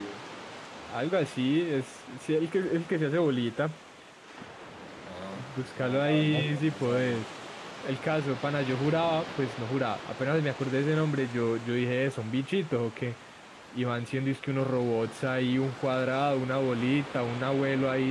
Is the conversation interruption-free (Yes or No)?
No